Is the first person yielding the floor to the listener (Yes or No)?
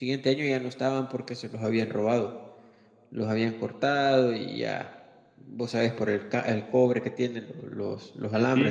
Yes